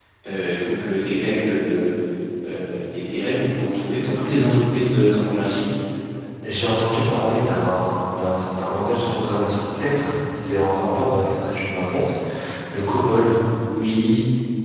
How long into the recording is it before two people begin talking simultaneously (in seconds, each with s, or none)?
none